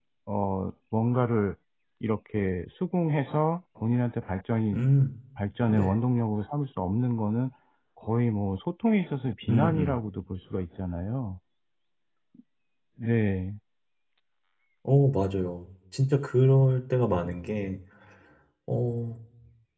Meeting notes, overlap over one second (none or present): none